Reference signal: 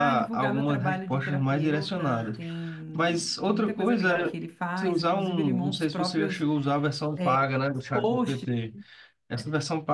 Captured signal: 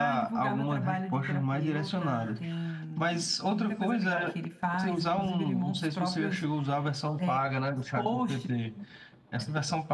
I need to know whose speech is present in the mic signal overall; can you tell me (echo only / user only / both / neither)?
echo only